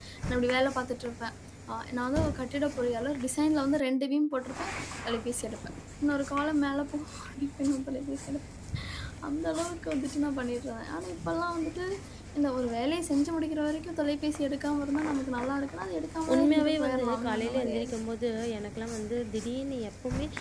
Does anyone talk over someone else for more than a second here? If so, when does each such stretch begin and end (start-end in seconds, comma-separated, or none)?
16.3-18.0